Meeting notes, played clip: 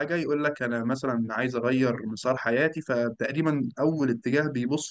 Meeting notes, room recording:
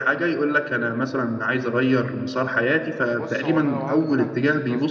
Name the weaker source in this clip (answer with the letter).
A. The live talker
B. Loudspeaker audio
A